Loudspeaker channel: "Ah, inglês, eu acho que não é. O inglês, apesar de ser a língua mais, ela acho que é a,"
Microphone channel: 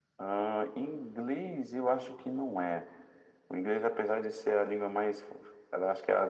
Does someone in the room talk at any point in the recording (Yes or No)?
No